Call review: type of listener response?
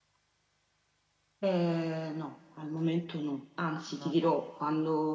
listening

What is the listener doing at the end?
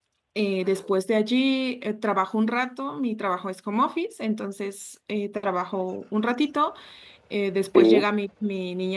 listening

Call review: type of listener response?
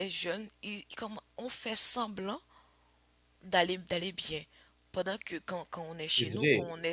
listening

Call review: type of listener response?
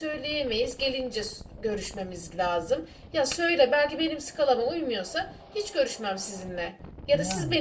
listening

